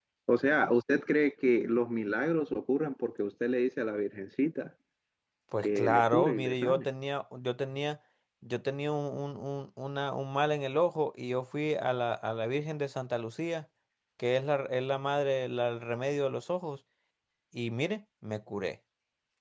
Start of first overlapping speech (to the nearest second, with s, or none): 6 s